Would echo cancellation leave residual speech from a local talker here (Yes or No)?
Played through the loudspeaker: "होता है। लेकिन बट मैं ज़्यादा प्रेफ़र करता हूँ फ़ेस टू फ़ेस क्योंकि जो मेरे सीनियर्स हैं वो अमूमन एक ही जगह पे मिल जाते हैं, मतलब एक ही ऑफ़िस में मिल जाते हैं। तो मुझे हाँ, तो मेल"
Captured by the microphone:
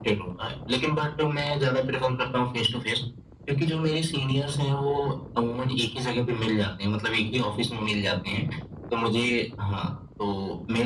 No